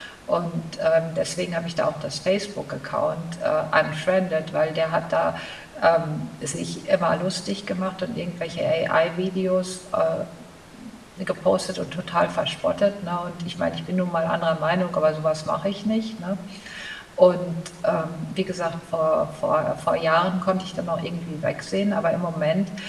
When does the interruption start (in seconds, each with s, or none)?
none